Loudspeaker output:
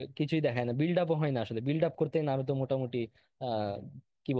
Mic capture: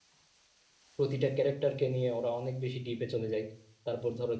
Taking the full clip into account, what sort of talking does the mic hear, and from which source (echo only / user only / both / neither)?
user only